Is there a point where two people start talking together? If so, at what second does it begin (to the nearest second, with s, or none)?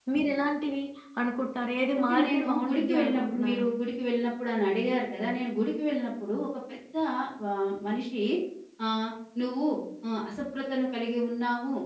2 s